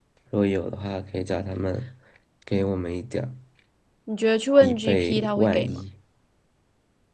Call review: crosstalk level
present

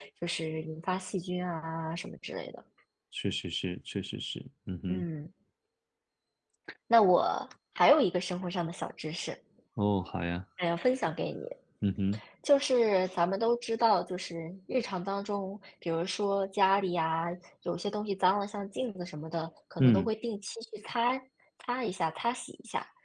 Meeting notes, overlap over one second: none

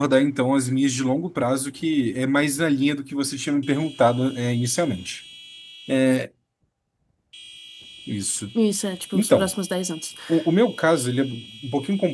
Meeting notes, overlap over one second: none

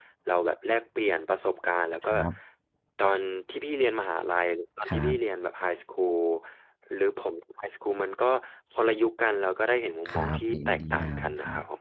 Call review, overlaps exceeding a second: present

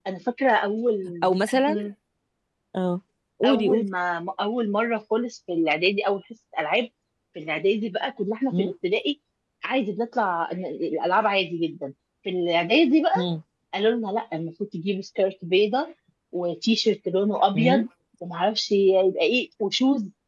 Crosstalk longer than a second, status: none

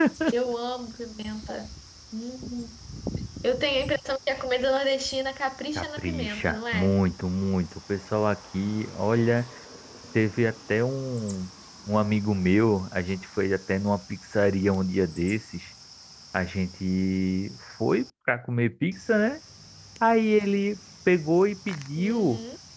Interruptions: present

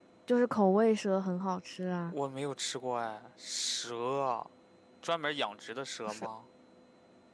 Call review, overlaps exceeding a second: none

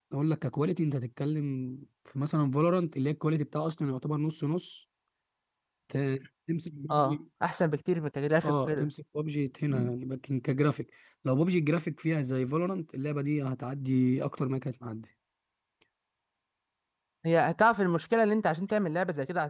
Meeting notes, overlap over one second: none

